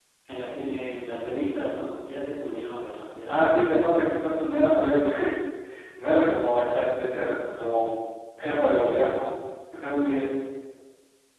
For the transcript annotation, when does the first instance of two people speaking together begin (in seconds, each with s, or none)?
3.3 s